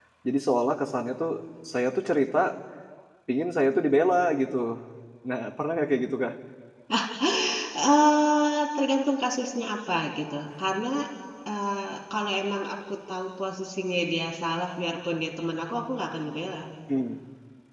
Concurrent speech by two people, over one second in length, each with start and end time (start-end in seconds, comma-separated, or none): none